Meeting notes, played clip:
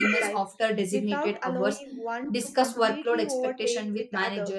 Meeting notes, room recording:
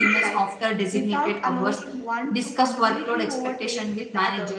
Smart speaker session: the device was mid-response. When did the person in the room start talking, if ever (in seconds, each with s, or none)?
none